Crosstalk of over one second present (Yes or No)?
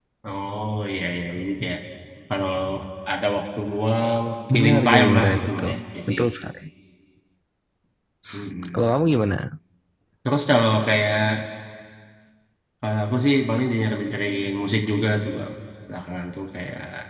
Yes